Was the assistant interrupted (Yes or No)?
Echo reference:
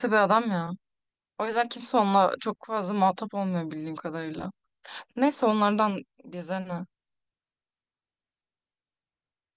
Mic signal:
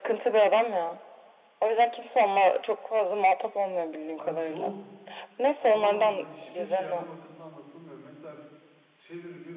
Yes